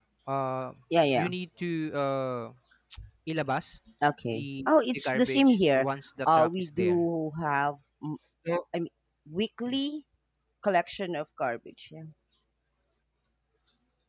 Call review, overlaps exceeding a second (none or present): present